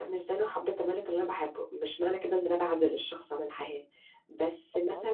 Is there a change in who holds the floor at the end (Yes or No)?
No